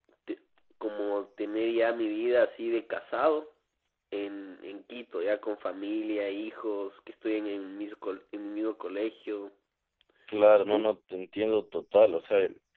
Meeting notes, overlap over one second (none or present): none